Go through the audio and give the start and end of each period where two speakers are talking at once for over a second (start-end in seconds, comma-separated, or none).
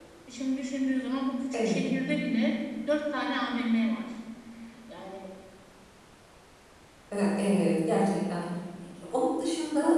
none